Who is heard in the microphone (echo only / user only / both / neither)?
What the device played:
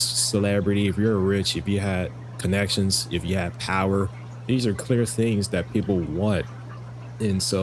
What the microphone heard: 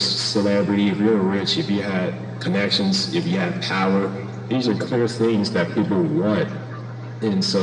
echo only